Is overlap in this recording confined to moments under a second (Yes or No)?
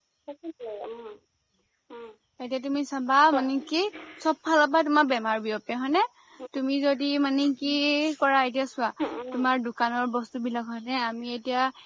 Yes